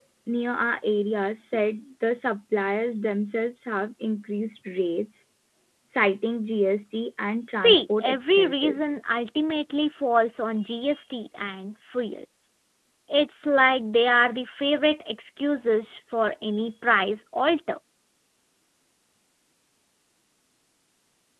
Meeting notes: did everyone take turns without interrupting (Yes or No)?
No